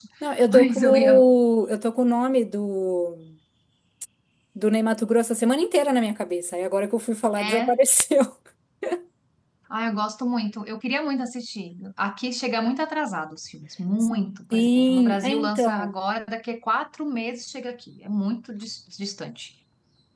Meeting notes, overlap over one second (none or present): present